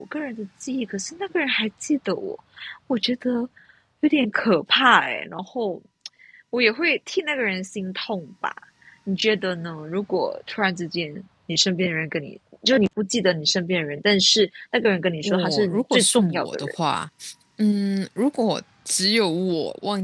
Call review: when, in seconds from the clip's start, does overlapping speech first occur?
15.2 s

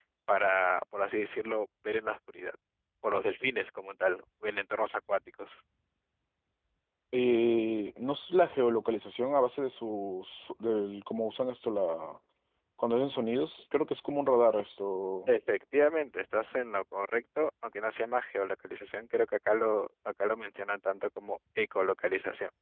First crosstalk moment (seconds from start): none

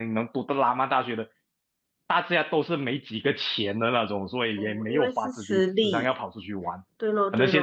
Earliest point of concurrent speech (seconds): 4.6 s

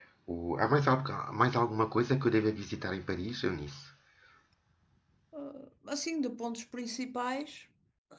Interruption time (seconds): none

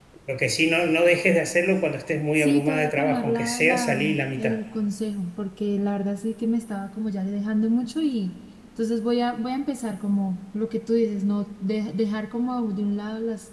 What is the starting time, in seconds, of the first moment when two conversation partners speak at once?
2.3 s

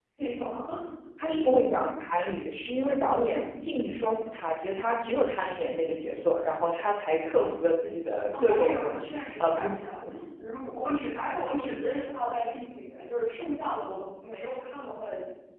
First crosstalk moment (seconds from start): 8.3 s

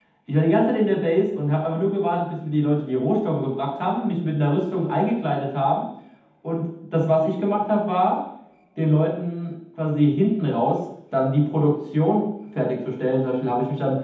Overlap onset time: none

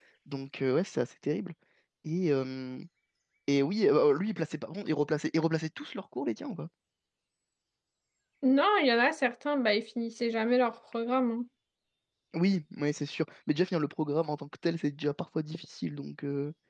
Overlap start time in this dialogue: none

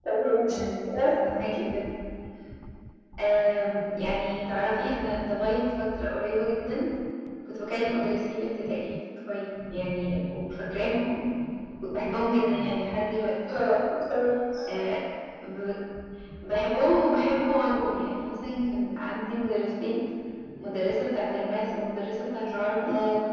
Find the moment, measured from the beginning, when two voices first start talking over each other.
none

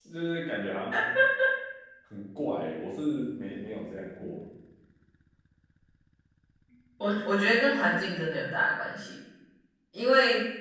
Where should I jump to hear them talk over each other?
none

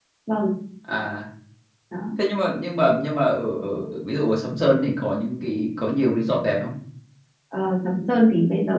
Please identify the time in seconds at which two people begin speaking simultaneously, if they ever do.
none

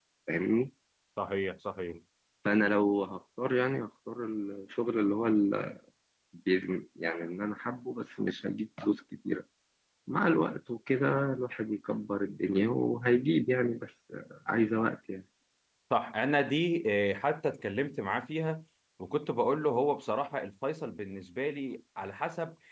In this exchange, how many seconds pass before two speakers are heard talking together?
none

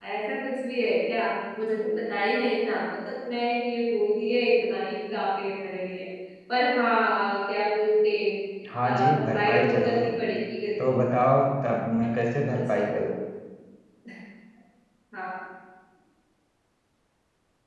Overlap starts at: 8.8 s

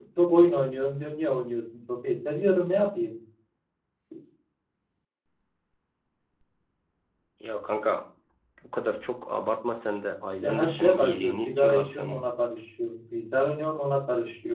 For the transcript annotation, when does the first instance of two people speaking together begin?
10.4 s

